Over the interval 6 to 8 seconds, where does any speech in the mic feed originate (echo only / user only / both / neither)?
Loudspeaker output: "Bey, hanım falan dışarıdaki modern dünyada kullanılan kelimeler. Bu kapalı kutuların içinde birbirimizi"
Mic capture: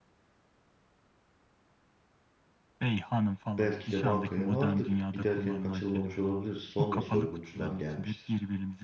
both